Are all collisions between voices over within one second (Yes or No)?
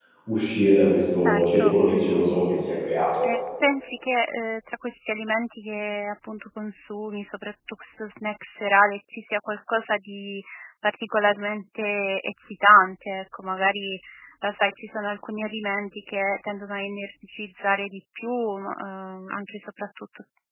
No